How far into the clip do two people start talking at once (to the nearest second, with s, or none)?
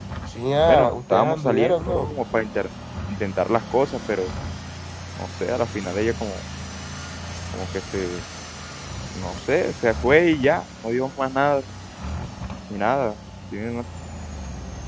1 s